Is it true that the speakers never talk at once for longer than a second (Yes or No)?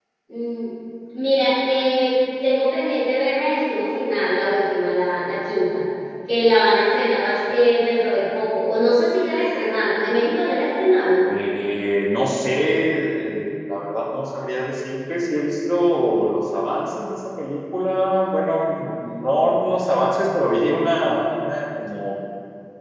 Yes